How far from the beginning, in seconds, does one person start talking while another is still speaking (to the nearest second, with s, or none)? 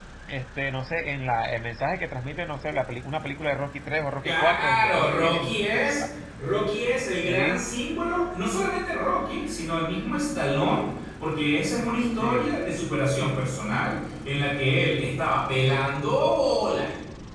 4 s